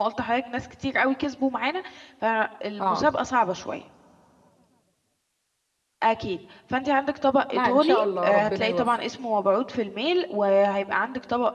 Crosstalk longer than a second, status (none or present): present